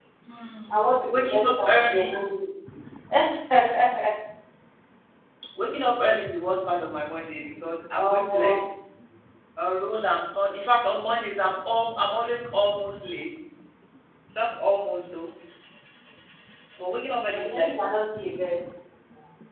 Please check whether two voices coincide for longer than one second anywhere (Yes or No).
Yes